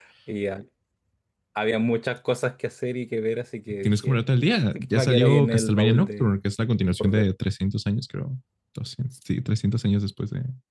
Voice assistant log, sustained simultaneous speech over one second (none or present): present